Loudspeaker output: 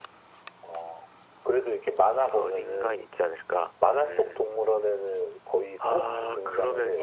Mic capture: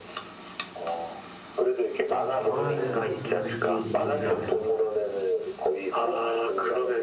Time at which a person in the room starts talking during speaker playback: 2.1 s

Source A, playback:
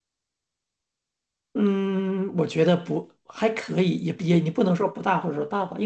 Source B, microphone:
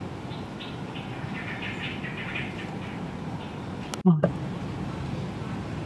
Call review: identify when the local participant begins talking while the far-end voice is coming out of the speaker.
4.0 s

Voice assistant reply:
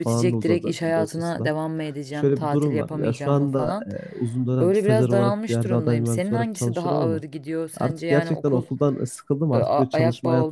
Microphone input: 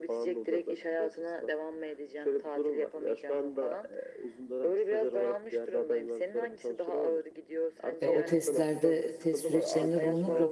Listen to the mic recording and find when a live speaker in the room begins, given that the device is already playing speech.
8.0 s

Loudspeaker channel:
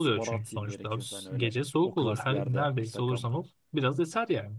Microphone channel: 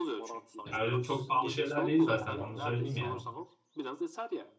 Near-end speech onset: 0.7 s

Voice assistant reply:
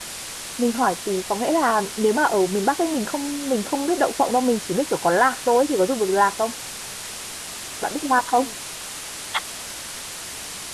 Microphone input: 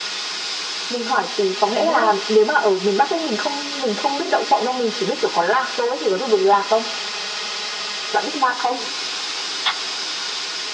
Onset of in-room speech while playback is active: 1.7 s

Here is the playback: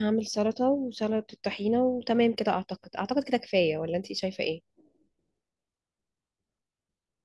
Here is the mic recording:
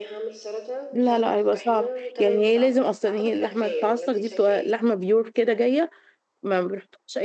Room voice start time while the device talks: 0.9 s

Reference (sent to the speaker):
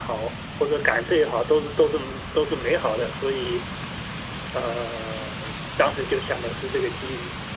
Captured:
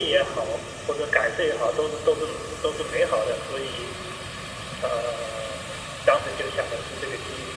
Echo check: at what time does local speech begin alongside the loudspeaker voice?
none

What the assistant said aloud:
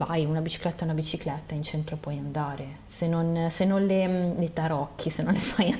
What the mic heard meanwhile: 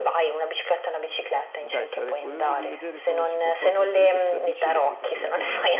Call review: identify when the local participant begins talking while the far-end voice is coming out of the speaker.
1.5 s

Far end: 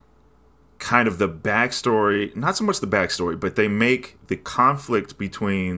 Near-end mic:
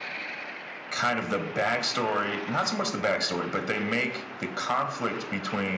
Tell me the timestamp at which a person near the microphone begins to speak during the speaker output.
none

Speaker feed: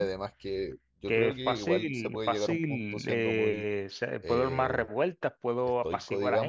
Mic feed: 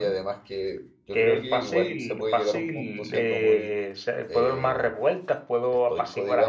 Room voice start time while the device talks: none

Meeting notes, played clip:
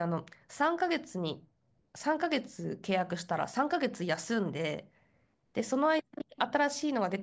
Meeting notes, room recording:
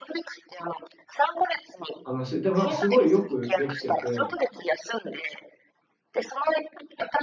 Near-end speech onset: 2.0 s

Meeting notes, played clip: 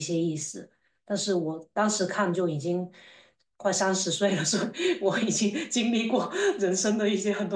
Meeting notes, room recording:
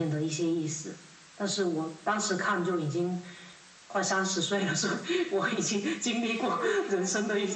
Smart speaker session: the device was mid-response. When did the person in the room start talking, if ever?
6.1 s

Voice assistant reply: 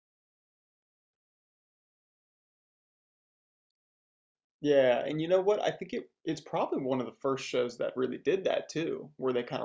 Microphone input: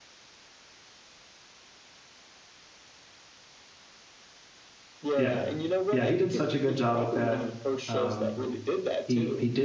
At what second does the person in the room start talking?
5.2 s

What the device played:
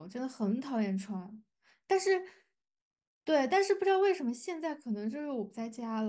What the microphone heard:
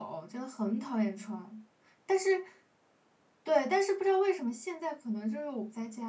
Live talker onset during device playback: none

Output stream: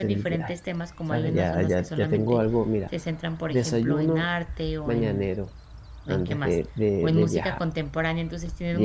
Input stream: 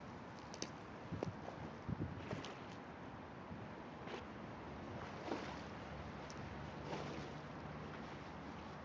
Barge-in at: none

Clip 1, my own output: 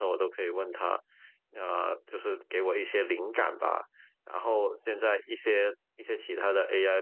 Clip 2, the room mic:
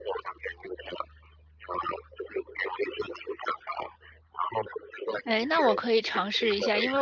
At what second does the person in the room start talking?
5.2 s

